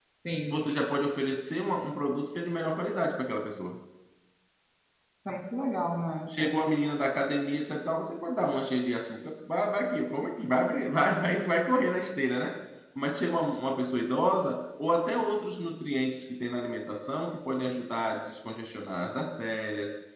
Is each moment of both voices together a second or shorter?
Yes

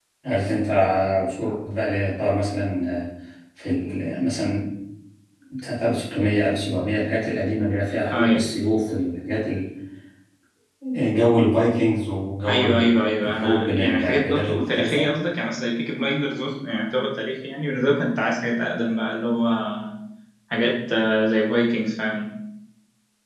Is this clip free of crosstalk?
No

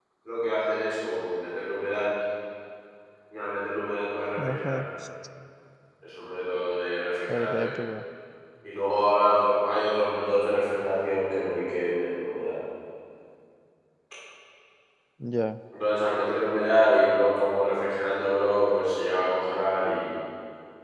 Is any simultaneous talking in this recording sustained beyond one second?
No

